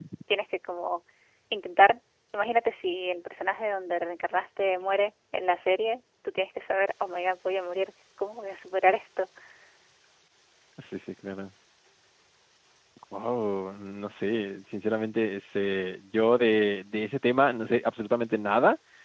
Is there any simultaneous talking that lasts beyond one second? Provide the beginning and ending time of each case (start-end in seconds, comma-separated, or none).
none